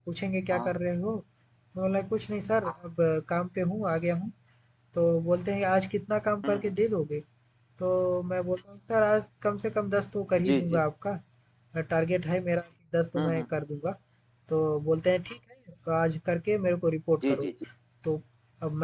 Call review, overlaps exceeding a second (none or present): none